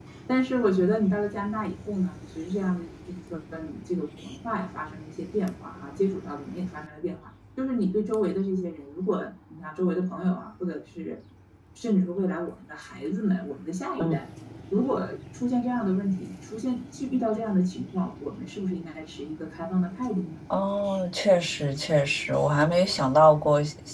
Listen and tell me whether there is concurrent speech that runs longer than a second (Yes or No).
No